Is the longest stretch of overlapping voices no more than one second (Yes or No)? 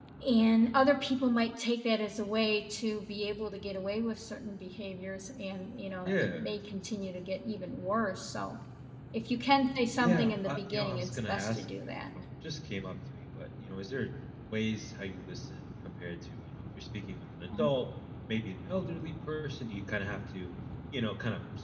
No